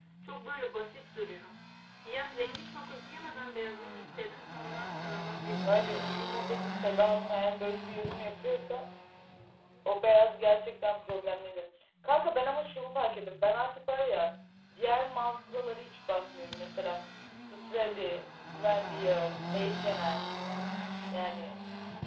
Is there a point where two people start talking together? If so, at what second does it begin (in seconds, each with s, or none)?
5.6 s